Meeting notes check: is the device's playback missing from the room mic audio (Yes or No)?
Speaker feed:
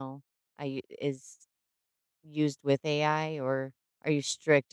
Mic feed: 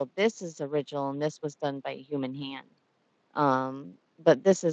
Yes